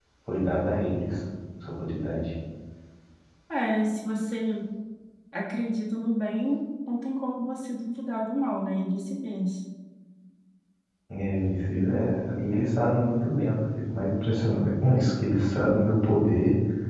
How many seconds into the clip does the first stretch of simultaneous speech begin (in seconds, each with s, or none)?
none